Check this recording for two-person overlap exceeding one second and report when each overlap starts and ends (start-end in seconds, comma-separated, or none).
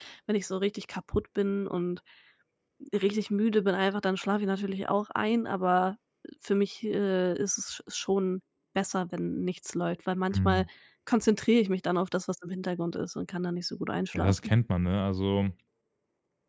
none